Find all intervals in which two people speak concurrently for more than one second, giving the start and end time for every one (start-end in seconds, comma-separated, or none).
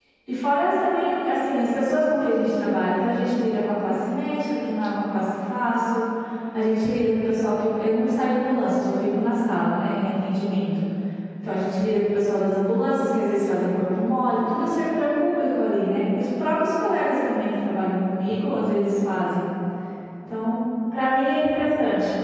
none